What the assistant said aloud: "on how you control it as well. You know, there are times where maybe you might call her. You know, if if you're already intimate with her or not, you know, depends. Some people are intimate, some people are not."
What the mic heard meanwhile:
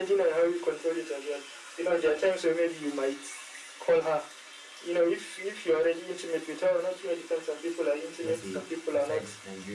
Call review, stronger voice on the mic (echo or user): echo